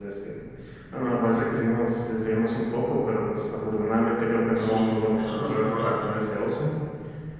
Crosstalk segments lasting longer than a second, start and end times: 4.6-6.1

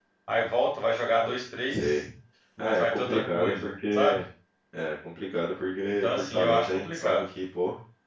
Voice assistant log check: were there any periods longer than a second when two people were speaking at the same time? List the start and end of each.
2.6-4.2, 6.0-7.3

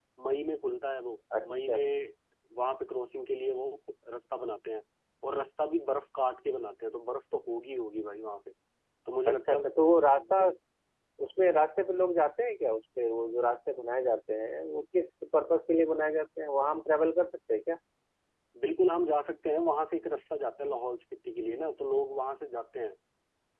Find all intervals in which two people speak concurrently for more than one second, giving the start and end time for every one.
none

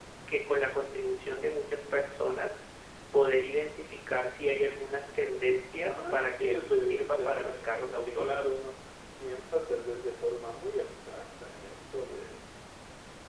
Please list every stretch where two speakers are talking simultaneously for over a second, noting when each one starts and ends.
5.8-8.6

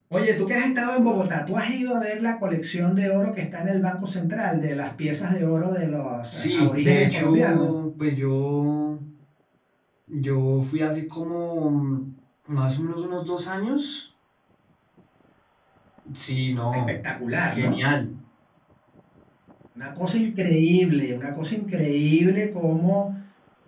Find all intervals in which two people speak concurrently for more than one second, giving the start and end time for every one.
6.3-7.7

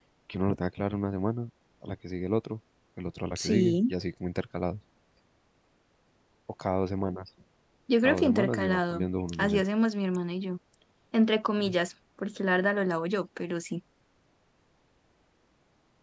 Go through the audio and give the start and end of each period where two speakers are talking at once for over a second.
8.0-9.6

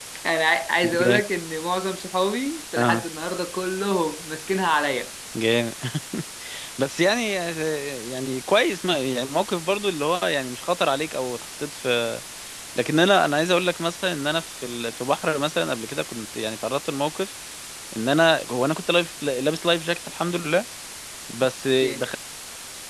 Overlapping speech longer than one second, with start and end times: none

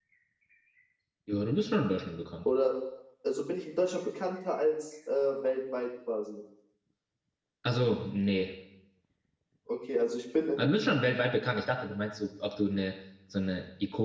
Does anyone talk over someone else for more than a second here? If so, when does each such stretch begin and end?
none

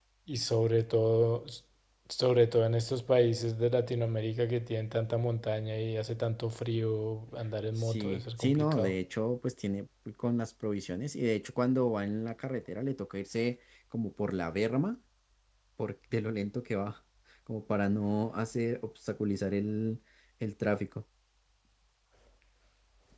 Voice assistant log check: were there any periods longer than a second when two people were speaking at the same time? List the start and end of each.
7.8-9.0

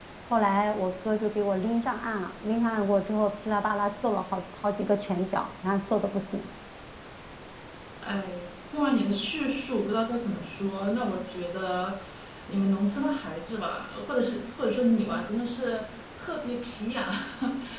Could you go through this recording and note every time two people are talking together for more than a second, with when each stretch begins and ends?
none

